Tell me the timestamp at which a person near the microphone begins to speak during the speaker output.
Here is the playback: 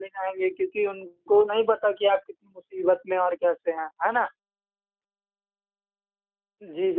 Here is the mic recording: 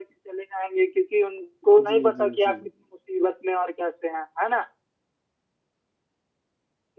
2 s

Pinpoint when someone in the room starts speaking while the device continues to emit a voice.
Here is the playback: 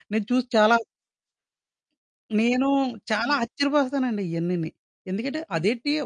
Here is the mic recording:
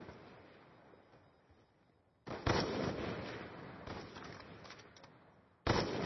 none

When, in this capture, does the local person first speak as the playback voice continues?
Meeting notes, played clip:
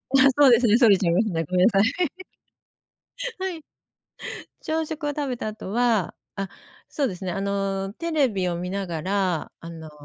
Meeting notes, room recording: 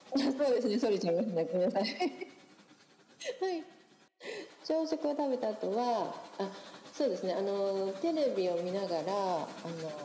none

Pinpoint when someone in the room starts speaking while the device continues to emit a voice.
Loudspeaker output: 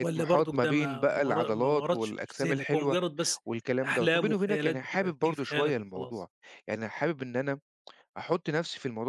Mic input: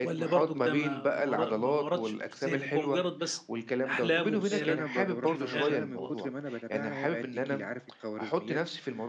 4 s

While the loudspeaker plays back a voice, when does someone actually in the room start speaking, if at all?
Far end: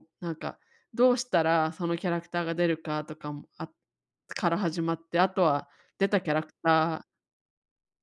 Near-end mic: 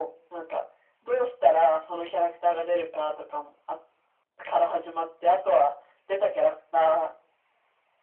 none

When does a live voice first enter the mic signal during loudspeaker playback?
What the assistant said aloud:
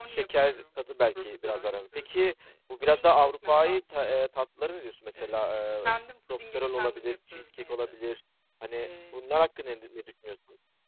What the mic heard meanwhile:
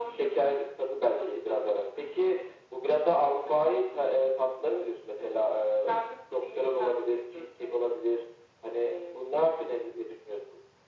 none

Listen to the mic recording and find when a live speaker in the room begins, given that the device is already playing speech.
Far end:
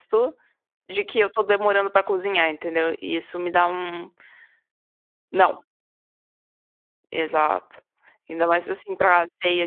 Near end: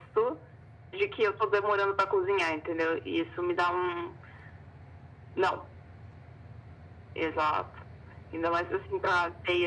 none

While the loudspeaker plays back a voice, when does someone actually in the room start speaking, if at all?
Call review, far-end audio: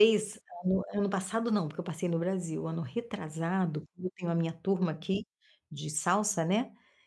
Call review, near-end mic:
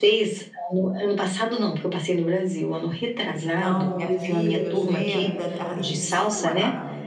3 s

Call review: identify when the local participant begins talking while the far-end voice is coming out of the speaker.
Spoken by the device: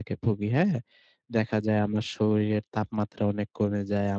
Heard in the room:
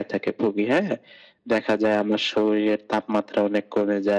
none

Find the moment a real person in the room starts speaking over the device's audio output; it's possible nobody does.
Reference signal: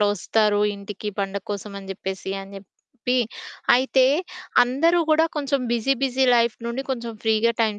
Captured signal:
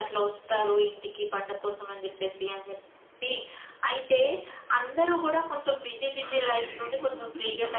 6 s

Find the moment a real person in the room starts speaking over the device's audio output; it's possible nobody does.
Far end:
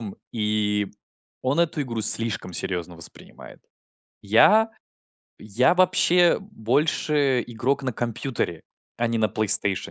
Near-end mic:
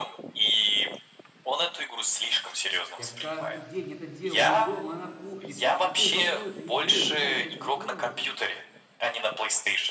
3 s

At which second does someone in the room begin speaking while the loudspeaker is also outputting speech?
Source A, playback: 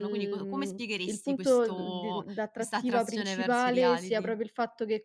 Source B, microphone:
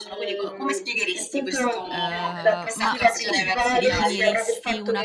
2 s

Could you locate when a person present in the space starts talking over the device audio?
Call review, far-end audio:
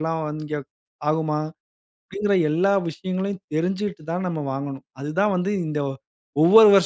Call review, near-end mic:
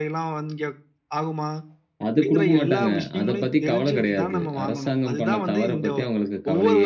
2 s

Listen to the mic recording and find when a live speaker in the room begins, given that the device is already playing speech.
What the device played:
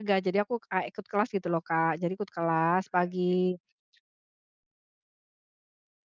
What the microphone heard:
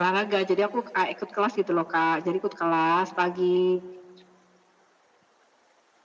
none

